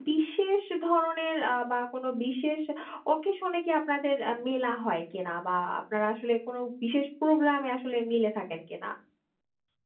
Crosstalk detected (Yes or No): No